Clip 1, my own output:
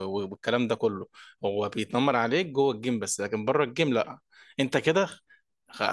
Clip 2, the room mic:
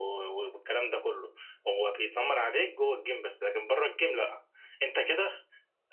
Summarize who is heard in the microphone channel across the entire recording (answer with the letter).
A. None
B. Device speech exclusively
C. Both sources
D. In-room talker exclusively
B